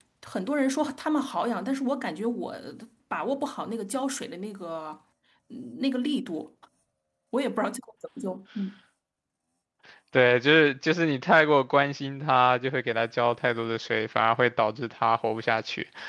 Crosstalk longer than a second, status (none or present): none